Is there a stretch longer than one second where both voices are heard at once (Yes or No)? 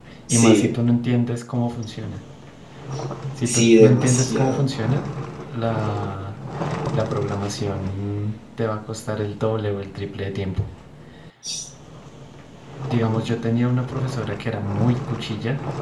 Yes